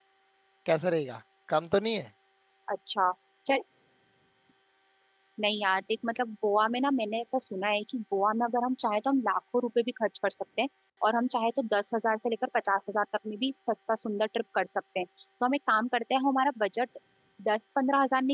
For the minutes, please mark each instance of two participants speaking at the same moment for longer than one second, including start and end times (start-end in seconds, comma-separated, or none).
none